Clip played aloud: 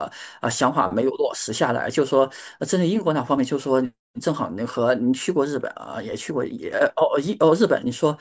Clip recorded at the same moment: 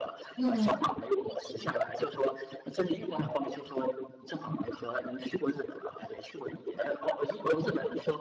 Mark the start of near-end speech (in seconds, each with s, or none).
0.4 s